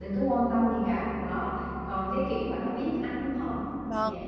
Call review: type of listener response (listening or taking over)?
taking over